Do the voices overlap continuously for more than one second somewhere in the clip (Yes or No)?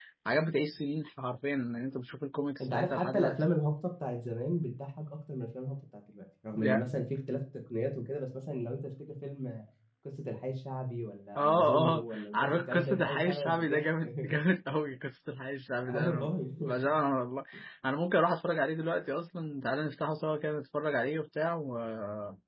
Yes